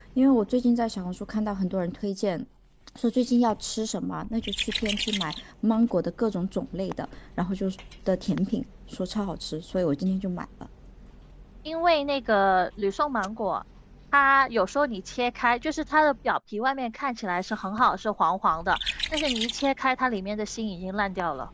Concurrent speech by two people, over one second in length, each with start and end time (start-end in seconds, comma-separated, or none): none